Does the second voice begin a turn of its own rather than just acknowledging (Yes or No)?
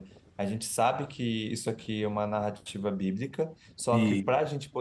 No